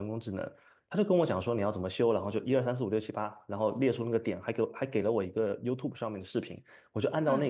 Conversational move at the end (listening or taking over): listening